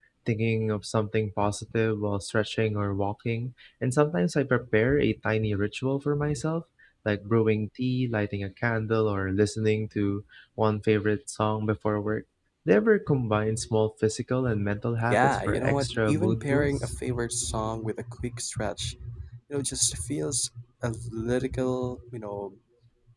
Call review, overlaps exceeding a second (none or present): present